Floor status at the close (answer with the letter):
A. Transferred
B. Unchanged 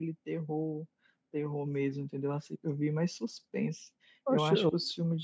B